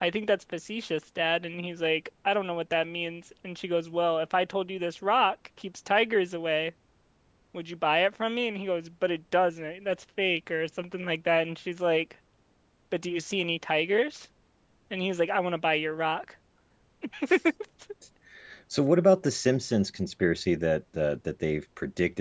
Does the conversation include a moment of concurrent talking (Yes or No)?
No